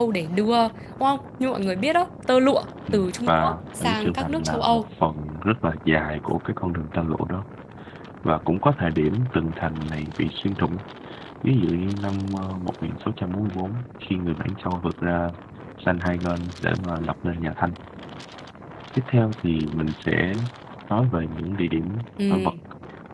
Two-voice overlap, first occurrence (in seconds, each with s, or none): 2.9 s